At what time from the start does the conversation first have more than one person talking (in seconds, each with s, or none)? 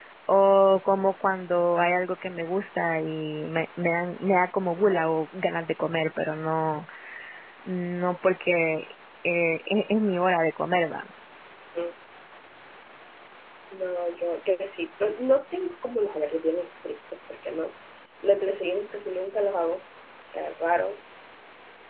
none